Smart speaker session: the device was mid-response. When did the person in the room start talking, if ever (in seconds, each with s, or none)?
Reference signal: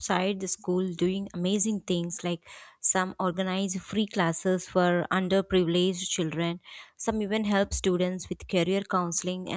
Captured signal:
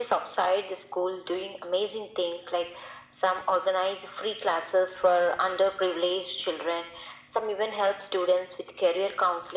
none